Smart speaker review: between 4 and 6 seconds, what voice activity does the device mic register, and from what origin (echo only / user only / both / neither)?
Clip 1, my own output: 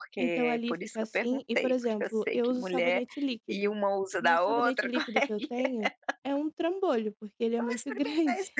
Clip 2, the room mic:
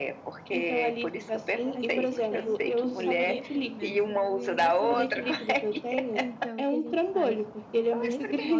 both